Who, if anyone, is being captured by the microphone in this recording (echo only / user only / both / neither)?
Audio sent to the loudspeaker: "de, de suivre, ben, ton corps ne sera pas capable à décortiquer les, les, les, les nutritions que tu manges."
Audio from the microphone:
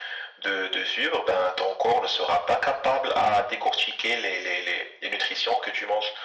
echo only